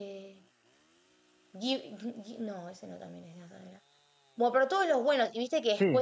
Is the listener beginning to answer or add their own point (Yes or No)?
No